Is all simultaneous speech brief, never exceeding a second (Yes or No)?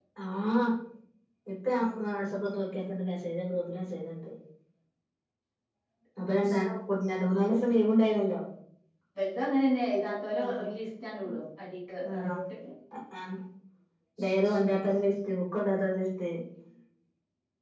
Yes